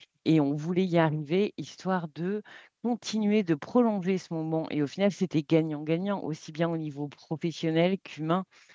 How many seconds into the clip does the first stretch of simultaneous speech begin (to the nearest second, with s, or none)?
none